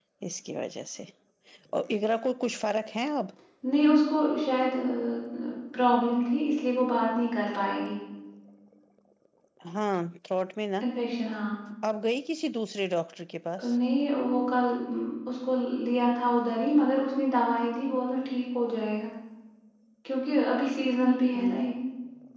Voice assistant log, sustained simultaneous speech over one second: none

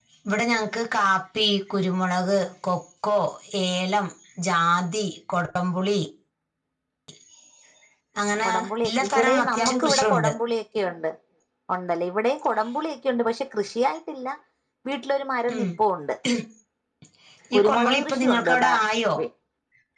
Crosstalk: present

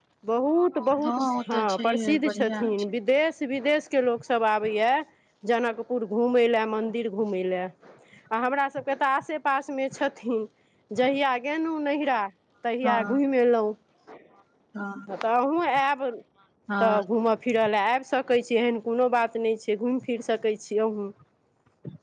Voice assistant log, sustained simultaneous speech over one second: present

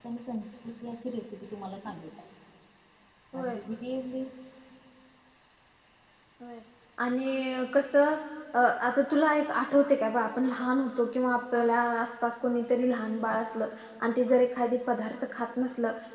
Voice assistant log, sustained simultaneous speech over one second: none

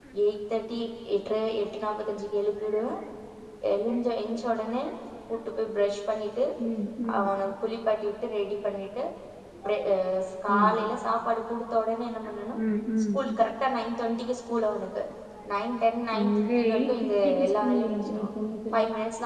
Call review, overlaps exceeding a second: present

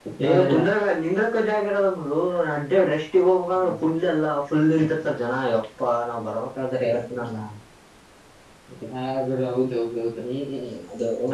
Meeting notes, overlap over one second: none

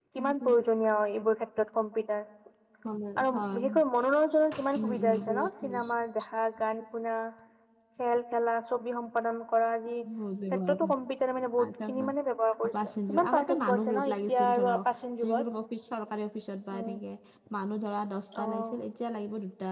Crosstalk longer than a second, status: present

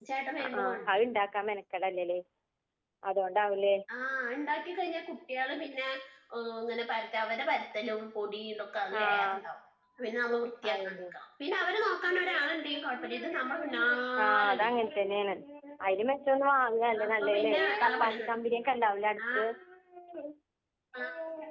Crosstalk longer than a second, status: present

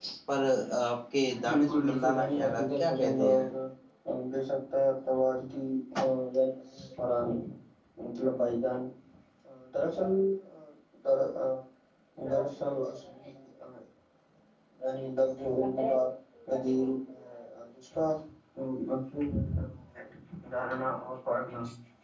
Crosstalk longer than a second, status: present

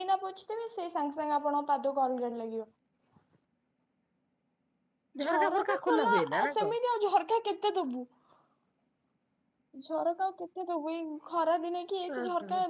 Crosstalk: present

